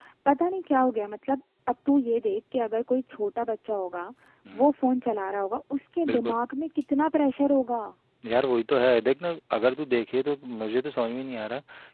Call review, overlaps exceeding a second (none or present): none